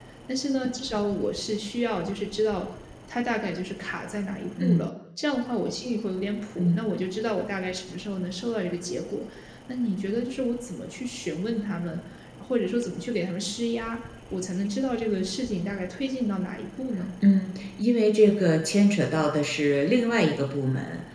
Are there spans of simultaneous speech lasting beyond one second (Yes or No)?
No